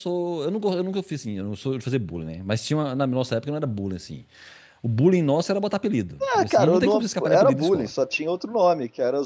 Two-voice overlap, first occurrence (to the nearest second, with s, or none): 6 s